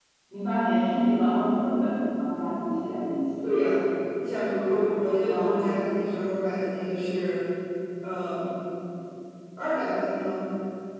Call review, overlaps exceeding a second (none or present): none